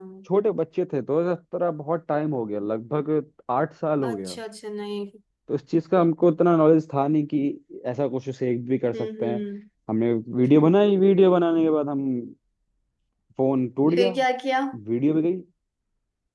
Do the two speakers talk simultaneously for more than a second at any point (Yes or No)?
No